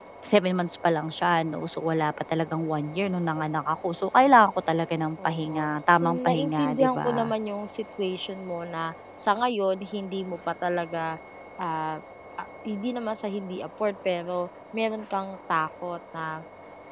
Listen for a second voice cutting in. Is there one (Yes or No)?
Yes